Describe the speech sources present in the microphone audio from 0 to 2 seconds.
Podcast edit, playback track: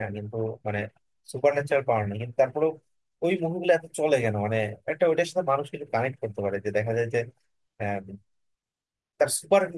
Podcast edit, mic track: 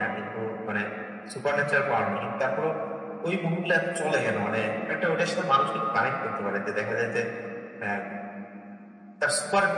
echo only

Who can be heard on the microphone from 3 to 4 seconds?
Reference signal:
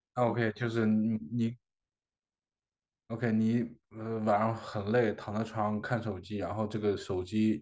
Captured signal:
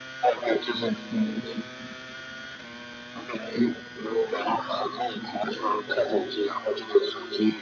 echo only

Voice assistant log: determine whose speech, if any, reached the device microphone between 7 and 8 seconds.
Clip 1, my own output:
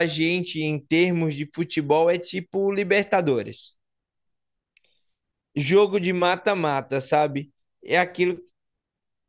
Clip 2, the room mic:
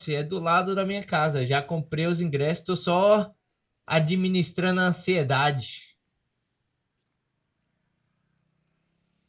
neither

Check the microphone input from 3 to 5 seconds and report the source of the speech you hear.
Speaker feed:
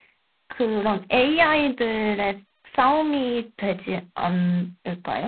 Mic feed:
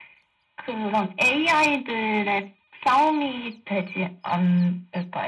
echo only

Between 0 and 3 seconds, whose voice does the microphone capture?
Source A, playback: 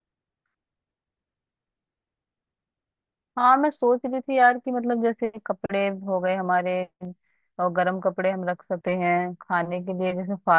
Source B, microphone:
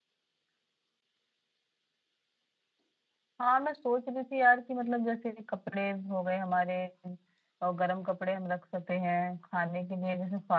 neither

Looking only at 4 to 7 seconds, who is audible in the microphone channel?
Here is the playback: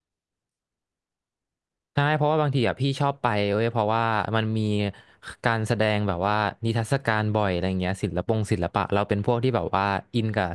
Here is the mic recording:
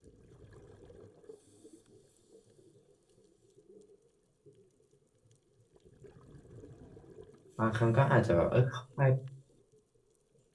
neither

